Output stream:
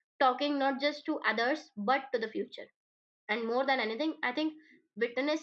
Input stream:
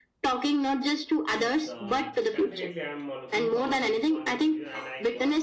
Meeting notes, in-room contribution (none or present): present